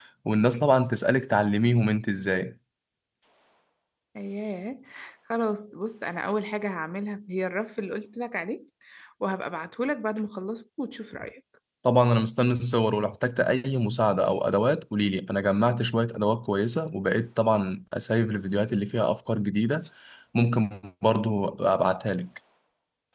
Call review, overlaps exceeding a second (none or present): none